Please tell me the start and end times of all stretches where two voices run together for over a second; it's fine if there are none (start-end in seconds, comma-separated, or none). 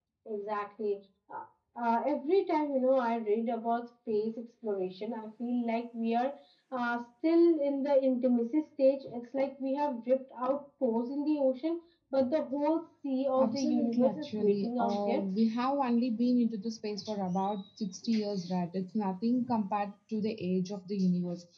13.4-15.2